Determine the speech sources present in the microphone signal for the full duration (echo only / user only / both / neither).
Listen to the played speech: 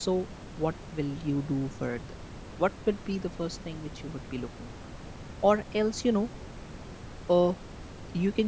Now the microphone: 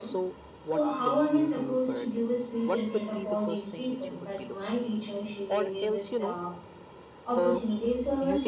both